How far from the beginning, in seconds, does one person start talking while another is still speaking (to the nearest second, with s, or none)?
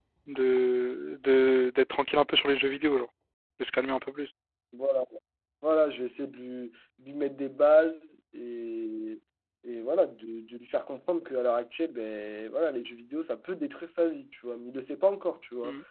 none